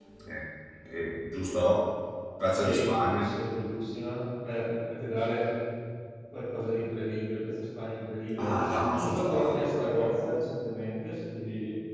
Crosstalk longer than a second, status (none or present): present